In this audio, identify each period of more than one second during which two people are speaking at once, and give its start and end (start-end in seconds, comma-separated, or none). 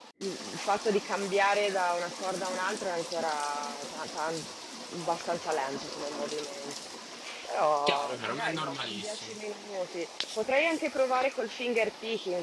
7.9-9.3